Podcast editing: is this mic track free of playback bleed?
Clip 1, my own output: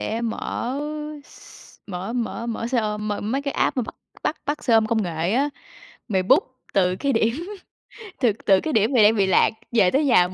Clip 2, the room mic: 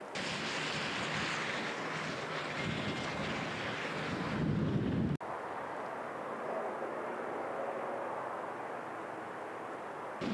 Yes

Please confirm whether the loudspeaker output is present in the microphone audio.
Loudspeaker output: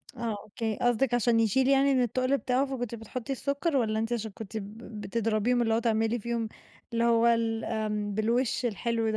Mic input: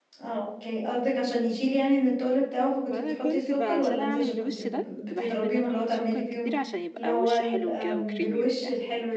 Yes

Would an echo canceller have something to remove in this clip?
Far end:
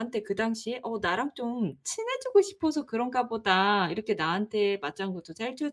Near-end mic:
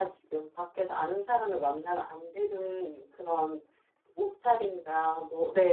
No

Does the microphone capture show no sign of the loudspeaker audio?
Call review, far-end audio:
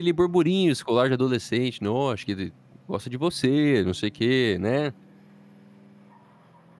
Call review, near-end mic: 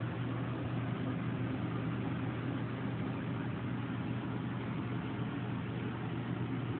Yes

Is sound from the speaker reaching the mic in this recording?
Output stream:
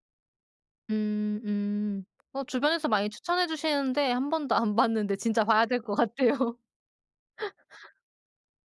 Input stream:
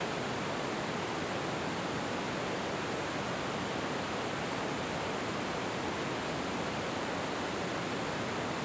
No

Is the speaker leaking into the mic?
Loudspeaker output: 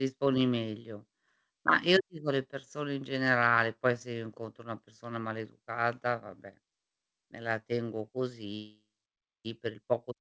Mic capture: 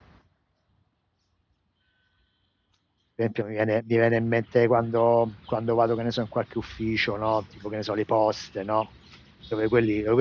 No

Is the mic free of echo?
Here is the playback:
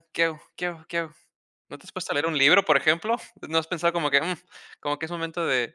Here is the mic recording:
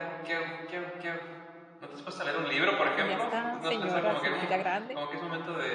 No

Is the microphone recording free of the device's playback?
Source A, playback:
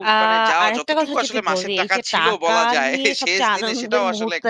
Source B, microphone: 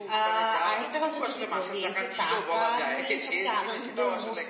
No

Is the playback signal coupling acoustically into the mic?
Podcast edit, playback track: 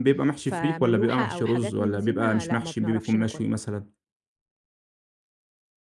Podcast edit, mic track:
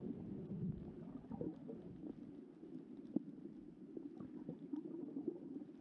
No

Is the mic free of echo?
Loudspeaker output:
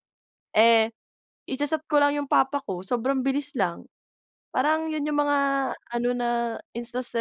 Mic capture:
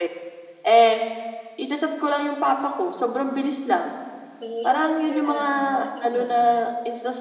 No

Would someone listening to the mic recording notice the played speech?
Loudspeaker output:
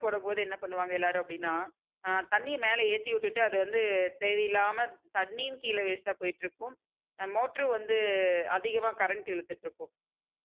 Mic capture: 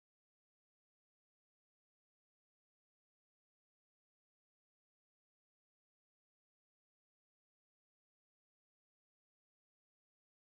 No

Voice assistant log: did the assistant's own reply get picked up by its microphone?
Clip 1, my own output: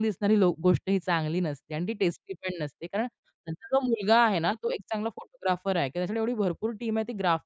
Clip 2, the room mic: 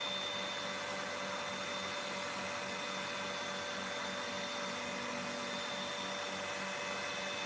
No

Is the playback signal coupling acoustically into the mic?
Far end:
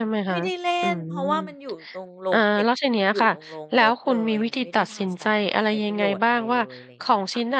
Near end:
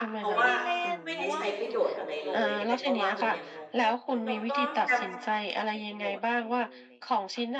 Yes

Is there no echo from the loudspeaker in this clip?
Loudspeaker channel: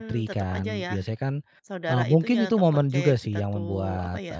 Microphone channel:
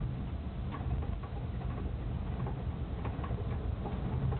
Yes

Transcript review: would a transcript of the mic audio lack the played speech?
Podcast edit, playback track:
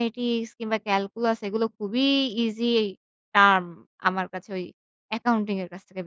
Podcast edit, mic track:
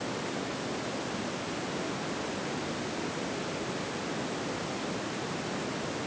Yes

